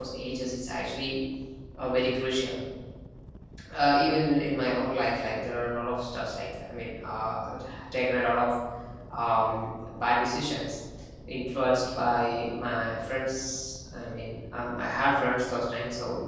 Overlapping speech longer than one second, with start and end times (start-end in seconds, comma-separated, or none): none